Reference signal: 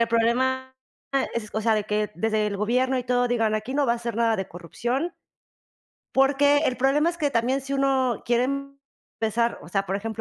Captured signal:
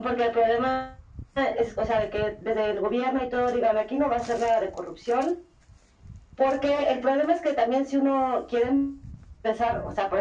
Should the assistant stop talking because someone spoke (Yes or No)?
No